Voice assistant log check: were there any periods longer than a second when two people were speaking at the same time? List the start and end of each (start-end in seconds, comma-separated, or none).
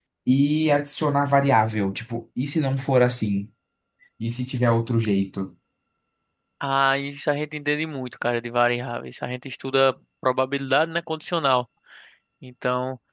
none